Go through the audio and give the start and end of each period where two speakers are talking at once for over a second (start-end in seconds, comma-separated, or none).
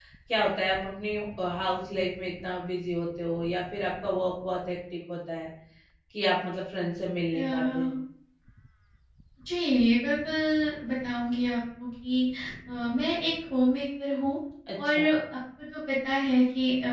none